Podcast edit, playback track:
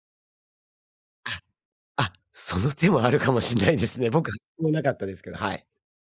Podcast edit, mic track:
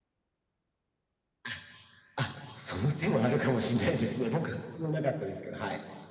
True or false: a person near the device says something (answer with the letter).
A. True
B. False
B